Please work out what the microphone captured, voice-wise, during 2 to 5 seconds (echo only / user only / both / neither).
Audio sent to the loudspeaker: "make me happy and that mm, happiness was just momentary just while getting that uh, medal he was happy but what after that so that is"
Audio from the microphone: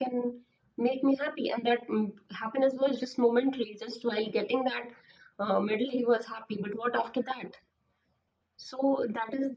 echo only